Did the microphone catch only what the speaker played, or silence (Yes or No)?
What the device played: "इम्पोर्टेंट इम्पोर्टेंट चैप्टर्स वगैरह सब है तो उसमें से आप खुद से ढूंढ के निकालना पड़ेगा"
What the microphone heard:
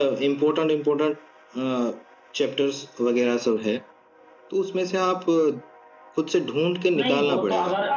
No